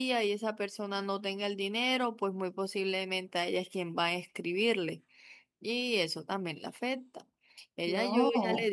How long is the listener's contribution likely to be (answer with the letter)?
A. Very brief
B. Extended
A